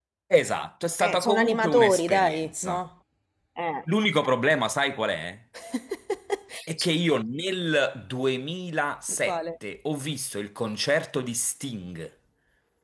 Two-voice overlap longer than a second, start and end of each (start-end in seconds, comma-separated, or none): 1.0-2.8